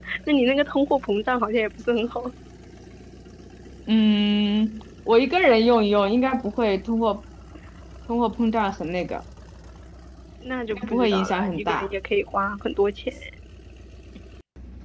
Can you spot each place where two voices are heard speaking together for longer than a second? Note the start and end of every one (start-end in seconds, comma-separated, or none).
10.7-11.9